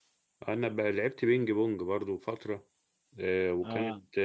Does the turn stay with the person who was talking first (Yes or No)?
Yes